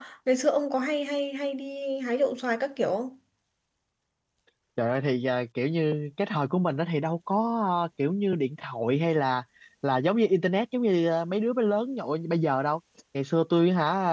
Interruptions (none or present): none